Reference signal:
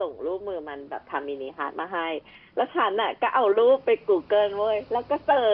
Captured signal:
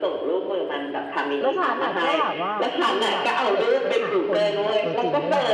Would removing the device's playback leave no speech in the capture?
No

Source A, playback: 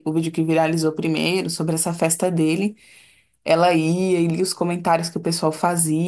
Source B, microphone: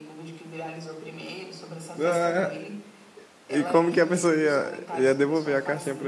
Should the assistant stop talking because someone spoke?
Yes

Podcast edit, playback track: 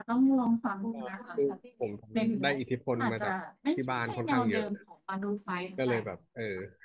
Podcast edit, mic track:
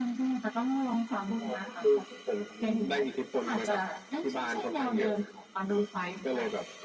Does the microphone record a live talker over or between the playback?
No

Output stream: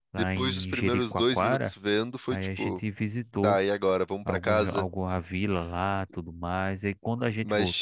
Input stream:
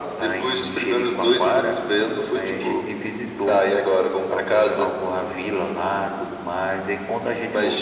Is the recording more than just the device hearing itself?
No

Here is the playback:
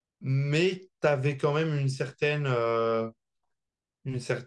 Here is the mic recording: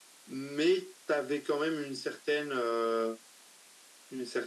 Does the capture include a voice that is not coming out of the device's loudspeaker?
No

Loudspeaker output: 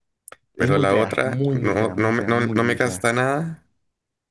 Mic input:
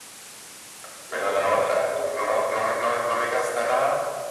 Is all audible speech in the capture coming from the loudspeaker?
Yes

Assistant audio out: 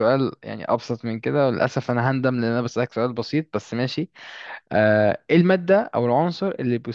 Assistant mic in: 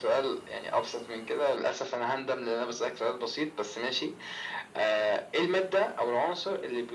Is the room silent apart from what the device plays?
Yes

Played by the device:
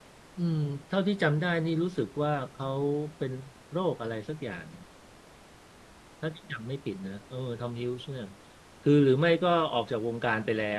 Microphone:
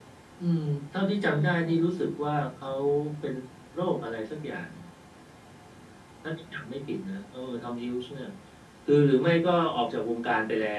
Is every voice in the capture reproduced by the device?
No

